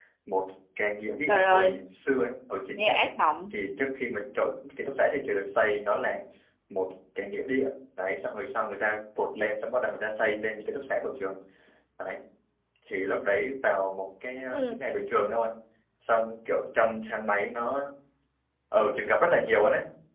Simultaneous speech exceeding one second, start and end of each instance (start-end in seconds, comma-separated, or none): none